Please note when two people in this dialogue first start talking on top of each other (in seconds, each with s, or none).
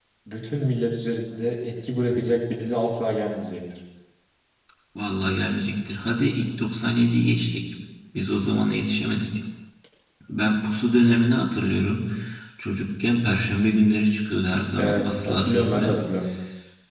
14.8 s